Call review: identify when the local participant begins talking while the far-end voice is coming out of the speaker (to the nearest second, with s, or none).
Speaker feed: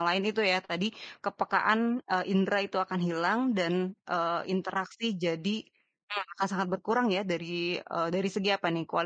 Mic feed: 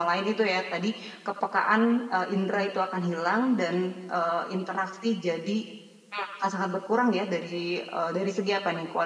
none